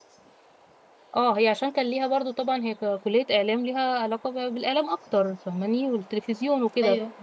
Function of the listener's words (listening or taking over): listening